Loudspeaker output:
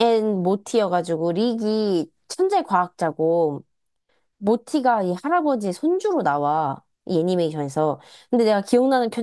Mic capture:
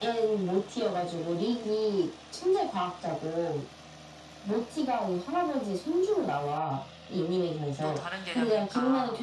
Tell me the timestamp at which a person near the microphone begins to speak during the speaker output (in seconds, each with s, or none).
7.8 s